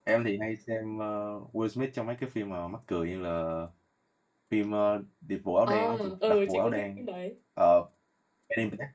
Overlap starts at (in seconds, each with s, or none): 5.7 s